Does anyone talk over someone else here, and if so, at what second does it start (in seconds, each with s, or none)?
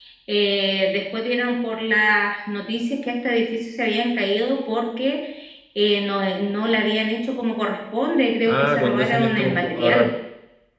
8.5 s